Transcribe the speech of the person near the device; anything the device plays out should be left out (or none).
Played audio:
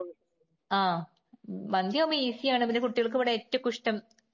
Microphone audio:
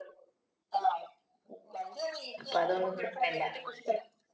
അപ്പൊ അതുകൊണ്ട് കുഴപ്പല്ല.